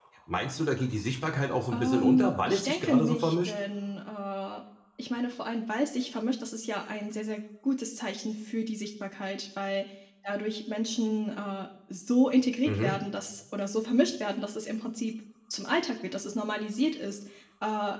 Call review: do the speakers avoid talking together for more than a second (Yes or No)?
No